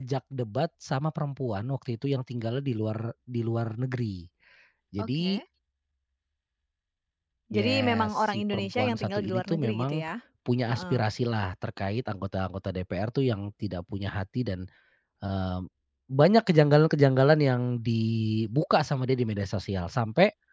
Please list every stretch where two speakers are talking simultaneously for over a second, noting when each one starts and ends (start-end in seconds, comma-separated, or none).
7.5-10.0